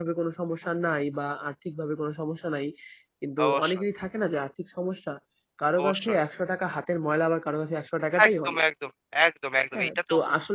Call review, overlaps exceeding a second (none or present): none